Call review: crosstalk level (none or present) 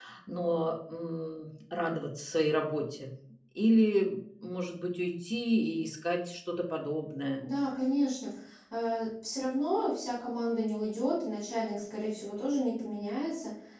none